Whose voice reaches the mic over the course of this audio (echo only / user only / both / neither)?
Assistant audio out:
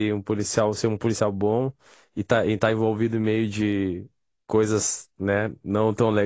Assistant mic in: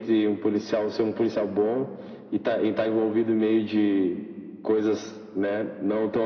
echo only